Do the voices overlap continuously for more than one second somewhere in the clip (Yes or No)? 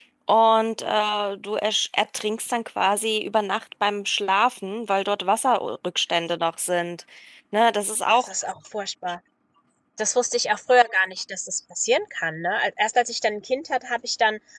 No